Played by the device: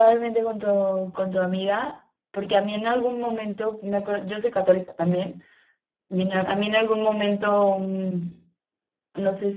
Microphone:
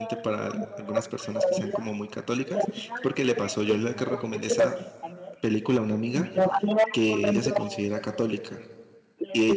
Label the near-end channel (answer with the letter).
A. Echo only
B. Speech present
B